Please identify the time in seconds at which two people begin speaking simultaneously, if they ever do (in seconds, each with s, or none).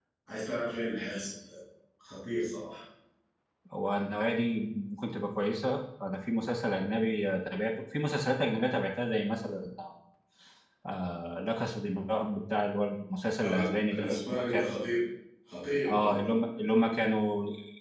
13.4 s